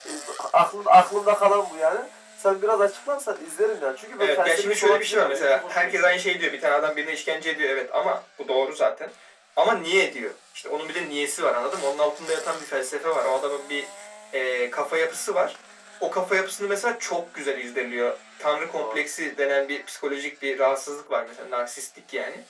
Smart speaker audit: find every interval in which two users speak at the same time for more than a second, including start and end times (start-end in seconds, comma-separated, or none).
4.2-6.1